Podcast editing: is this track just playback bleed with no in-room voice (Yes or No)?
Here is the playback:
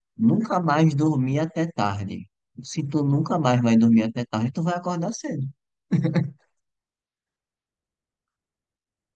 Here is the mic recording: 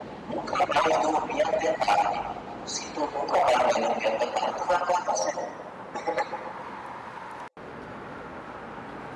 Yes